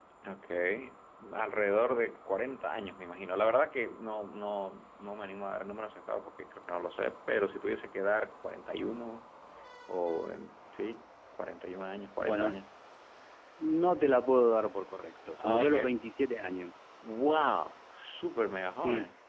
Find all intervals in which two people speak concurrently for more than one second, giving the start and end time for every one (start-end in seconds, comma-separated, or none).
none